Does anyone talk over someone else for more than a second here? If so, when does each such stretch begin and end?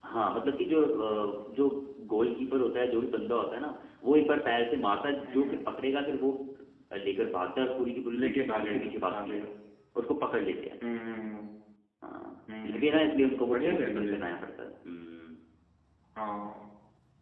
8.2-9.4, 12.6-14.3

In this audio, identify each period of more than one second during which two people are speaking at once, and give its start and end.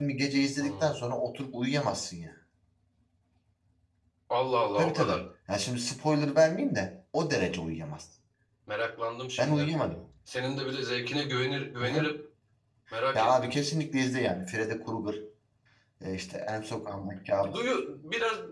none

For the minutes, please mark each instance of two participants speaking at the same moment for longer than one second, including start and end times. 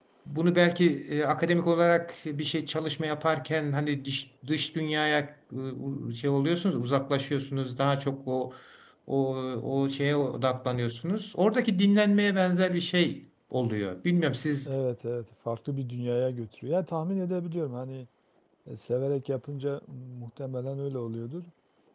none

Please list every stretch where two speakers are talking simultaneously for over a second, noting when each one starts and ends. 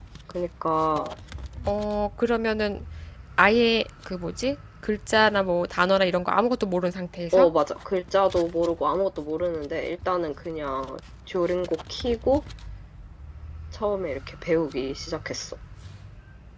none

